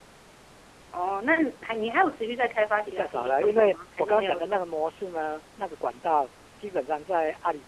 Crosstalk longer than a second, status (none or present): present